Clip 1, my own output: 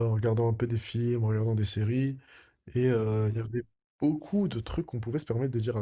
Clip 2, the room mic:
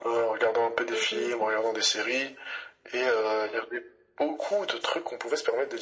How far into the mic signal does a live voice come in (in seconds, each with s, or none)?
0.9 s